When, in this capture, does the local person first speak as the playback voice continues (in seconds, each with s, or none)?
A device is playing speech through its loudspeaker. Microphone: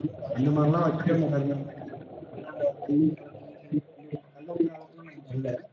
0.4 s